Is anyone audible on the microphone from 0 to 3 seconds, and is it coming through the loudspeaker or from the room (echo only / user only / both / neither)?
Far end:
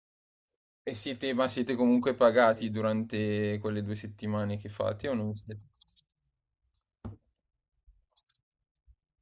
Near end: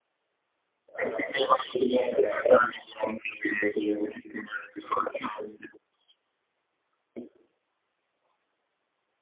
both